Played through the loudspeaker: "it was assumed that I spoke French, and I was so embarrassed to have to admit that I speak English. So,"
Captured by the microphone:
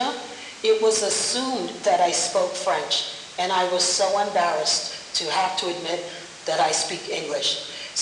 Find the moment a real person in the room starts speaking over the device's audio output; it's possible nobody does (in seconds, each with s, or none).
none